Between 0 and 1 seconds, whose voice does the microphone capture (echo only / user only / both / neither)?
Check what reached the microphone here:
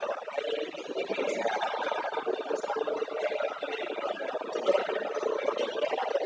echo only